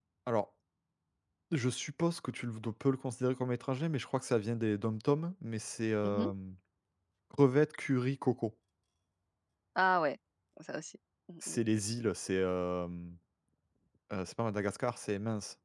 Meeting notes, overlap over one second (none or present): none